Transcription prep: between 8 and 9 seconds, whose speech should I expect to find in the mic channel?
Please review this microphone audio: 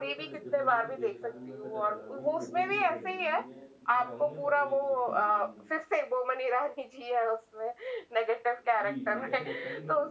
both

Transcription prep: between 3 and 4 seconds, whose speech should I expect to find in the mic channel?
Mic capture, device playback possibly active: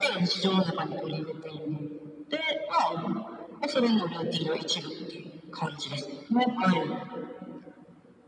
echo only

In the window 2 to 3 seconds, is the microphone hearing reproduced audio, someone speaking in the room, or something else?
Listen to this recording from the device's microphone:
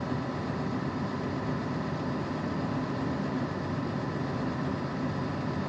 neither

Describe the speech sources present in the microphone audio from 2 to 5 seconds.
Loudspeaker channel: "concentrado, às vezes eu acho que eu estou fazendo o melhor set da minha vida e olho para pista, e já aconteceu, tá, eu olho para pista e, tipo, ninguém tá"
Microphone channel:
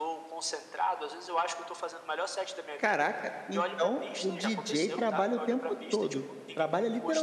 both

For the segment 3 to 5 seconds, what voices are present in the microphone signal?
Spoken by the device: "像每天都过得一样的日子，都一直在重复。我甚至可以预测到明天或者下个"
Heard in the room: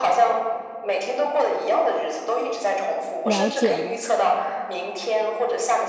both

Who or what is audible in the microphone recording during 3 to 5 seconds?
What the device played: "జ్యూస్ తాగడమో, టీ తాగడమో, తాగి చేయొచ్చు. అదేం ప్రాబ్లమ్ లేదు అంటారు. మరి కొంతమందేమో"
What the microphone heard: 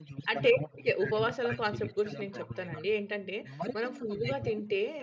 both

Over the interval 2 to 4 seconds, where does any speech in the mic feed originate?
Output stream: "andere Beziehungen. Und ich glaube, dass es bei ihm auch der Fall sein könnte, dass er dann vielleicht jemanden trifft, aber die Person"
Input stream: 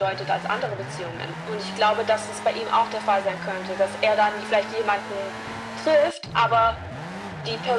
echo only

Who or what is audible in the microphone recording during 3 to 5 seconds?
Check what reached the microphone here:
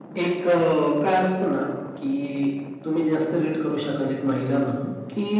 echo only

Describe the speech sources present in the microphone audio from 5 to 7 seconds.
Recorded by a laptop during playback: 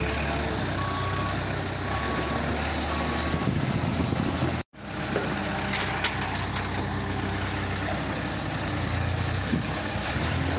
neither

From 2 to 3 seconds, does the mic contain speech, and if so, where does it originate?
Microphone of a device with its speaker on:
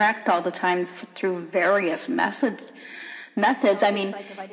echo only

